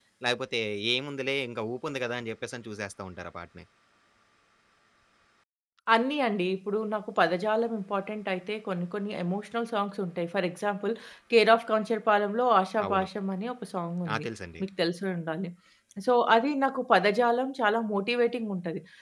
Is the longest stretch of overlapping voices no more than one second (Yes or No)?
Yes